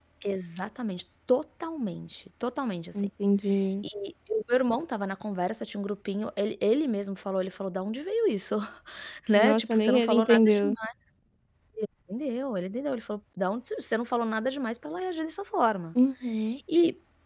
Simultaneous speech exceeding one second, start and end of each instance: 9.3-10.6

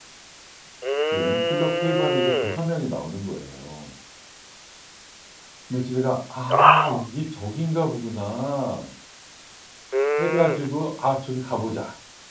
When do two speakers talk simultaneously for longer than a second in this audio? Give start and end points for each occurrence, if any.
1.1-2.6

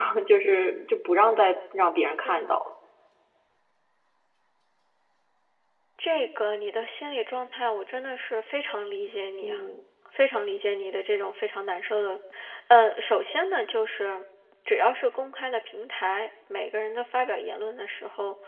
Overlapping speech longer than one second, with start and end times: none

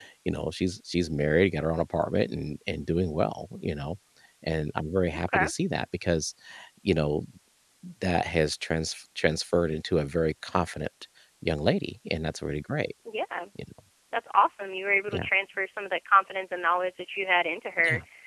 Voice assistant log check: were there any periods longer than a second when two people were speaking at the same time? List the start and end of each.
none

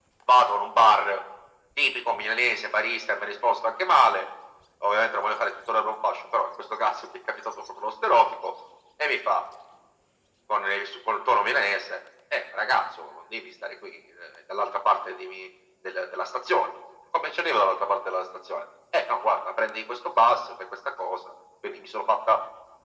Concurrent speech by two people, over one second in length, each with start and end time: none

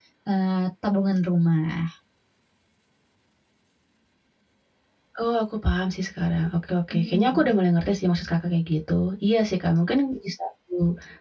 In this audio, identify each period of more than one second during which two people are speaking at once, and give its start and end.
none

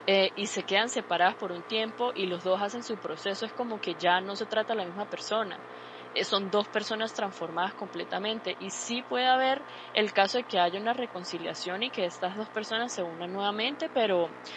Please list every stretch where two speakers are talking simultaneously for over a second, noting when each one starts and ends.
none

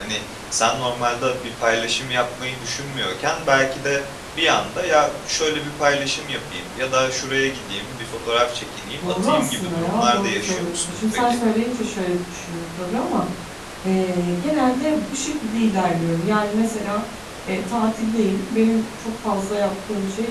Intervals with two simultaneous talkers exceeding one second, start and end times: 9.0-11.4

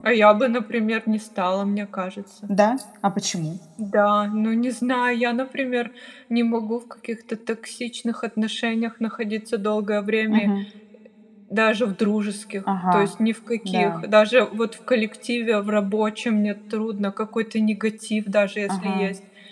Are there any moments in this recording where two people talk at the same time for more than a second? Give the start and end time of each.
none

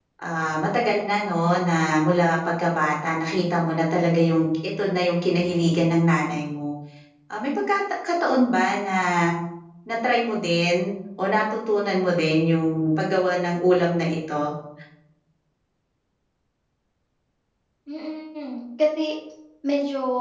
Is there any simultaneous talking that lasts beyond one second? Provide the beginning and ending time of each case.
none

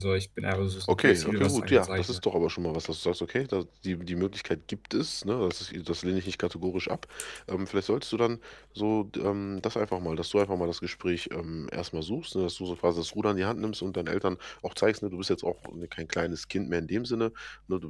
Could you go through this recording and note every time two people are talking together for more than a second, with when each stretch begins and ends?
0.9-2.2

